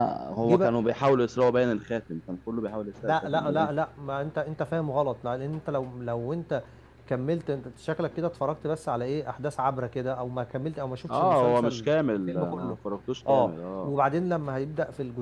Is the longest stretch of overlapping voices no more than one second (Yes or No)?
No